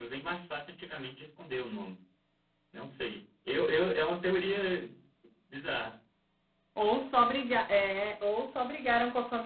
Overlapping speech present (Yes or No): No